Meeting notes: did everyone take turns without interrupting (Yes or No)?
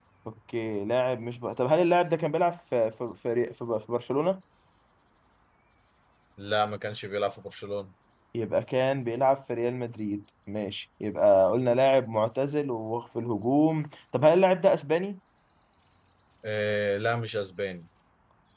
Yes